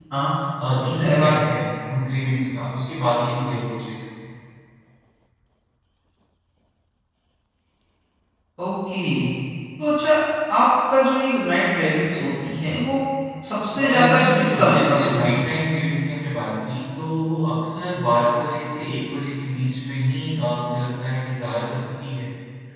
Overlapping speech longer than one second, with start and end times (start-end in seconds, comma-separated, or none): 13.8-15.5